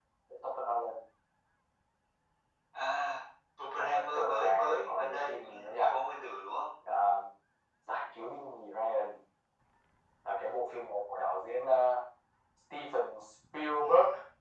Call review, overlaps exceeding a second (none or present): present